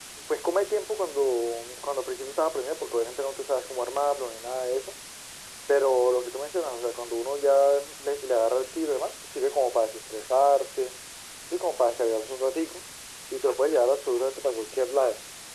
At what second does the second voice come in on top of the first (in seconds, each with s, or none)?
none